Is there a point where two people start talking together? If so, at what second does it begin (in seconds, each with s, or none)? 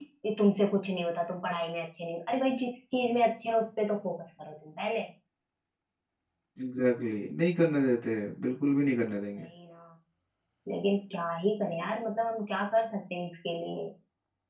none